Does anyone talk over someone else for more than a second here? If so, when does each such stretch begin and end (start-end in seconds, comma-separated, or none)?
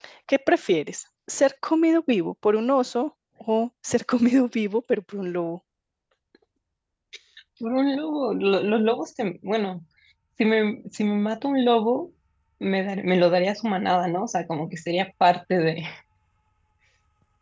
none